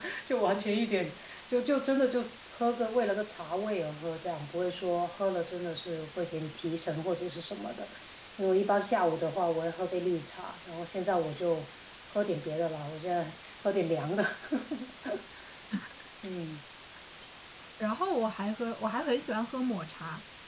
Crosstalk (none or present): none